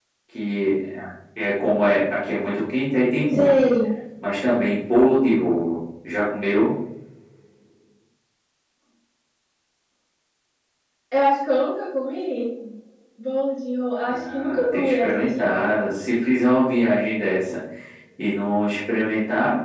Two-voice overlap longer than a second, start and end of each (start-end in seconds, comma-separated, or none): 14.0-15.7